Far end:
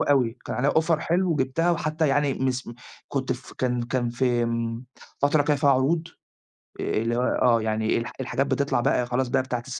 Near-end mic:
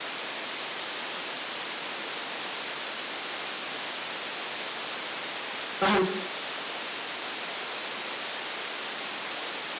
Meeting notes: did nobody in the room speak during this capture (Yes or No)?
No